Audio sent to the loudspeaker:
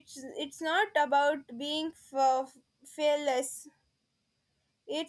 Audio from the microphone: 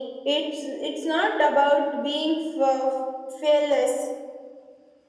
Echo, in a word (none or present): present